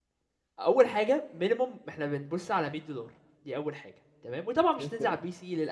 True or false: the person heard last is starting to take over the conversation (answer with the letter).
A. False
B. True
A